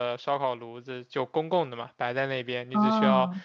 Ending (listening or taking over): listening